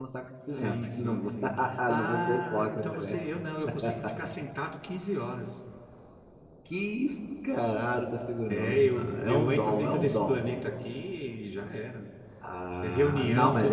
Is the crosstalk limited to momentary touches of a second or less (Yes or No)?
No